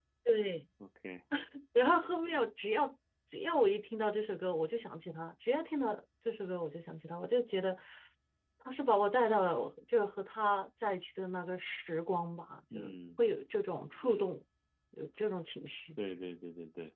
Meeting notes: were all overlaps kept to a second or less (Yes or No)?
Yes